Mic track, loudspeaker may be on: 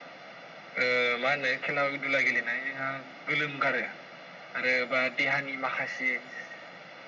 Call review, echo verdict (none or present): present